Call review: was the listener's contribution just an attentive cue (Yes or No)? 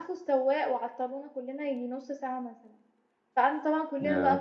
Yes